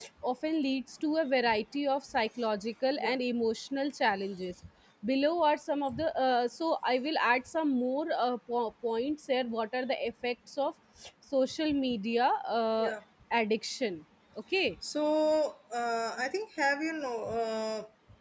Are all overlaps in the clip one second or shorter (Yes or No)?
Yes